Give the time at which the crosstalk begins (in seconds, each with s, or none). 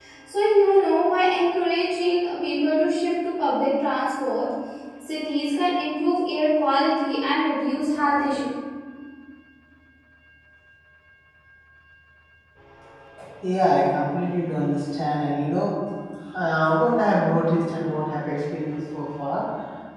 none